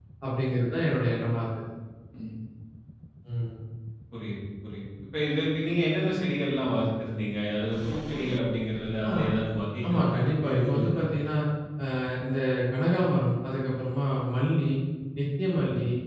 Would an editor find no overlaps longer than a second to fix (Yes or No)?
No